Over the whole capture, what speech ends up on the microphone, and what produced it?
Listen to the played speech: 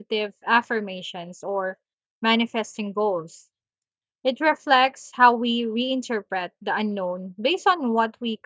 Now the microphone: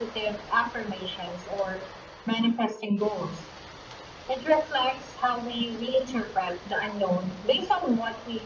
echo only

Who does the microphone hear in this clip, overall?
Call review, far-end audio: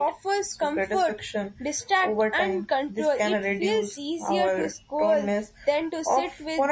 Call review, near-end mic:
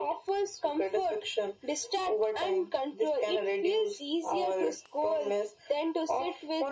echo only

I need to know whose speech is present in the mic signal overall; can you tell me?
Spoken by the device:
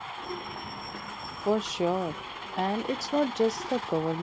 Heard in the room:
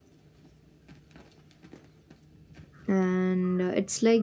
user only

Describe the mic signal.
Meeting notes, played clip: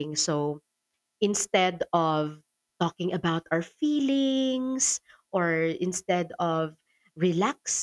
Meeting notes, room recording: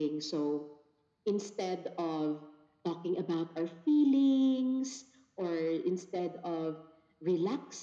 echo only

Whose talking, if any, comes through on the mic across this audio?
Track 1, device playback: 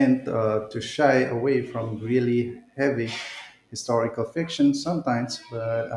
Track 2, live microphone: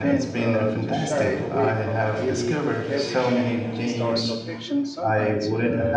both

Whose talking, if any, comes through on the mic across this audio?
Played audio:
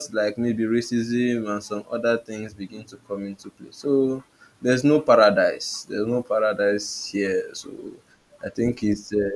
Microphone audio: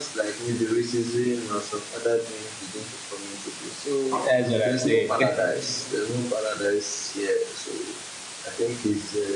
both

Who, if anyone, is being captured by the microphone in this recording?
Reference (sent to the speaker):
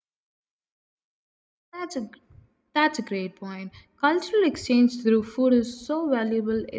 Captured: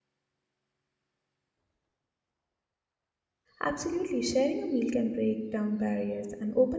user only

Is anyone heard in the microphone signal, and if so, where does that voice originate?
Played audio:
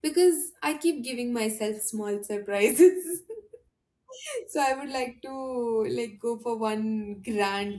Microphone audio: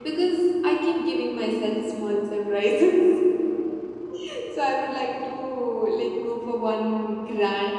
echo only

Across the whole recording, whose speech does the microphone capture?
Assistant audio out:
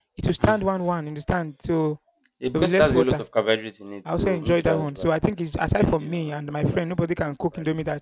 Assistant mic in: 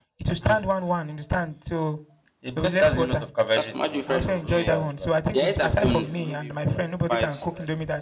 both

